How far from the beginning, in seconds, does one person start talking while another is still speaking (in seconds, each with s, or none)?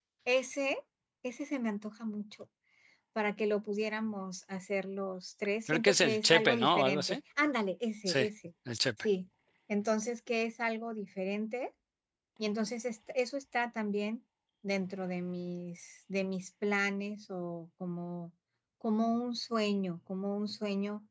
5.7 s